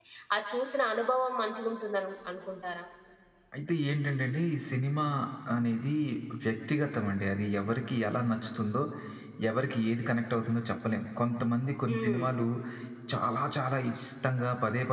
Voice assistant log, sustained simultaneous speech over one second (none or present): none